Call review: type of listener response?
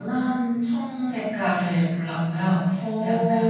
listening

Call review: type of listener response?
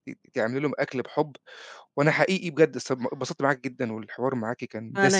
listening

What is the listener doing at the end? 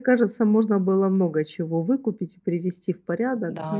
taking over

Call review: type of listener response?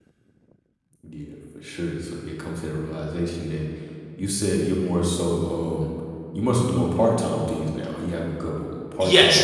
taking over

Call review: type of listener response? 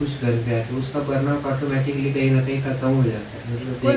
taking over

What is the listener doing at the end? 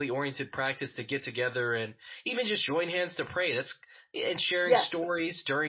listening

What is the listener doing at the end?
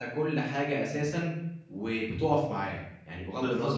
taking over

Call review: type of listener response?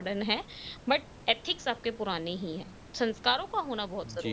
taking over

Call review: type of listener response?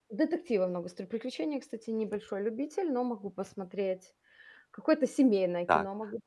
taking over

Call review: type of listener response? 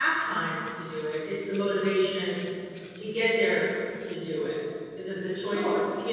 taking over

